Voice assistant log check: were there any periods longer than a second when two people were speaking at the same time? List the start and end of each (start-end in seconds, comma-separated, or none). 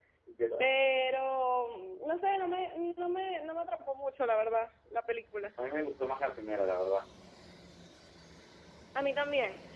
none